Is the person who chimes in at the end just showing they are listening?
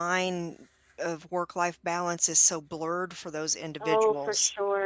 No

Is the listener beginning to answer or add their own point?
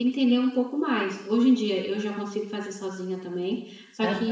No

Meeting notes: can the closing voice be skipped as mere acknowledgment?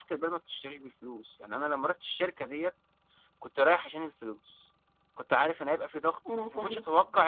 Yes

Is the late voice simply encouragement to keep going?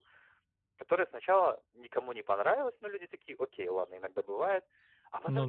Yes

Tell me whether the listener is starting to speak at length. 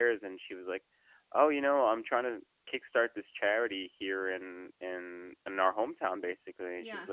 No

